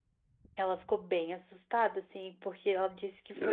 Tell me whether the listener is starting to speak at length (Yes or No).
No